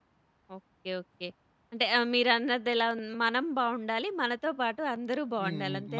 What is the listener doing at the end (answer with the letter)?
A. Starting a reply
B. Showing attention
A